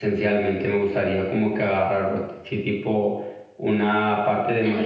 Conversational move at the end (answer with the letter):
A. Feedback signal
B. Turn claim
A